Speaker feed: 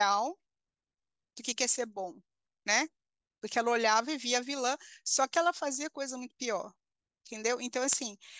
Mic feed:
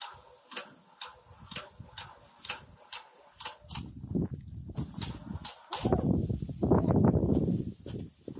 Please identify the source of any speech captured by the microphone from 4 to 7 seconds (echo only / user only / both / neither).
neither